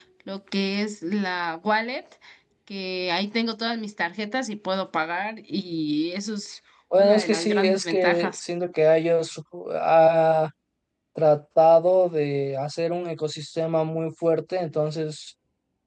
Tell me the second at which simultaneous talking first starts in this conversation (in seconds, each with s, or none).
6.9 s